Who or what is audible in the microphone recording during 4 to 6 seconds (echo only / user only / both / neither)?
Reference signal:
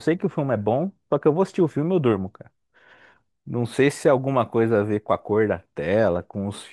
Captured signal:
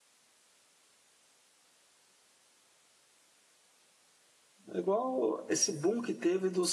user only